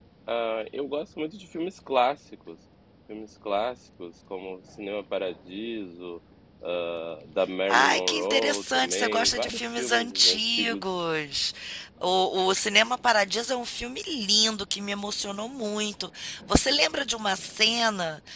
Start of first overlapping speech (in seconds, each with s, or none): 7.7 s